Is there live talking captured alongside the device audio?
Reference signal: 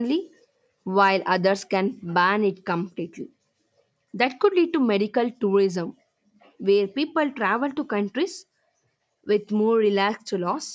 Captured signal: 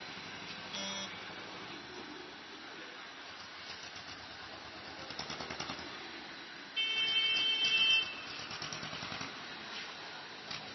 No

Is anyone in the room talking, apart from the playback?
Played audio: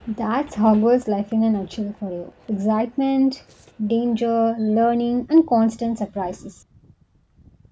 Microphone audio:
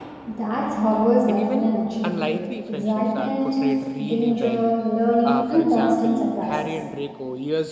Yes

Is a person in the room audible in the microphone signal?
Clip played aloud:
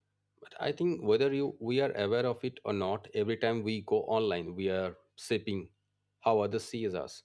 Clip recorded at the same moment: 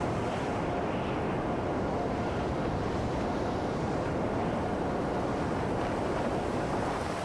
No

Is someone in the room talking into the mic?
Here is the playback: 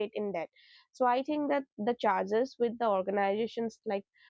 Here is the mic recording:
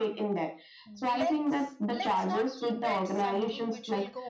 Yes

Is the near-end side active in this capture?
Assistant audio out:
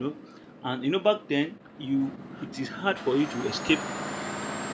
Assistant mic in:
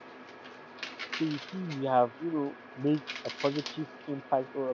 Yes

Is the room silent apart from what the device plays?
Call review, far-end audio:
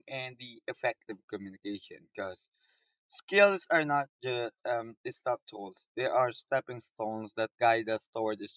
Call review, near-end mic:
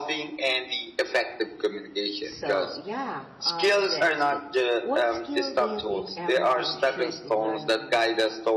No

